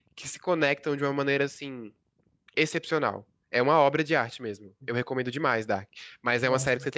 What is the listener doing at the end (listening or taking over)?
listening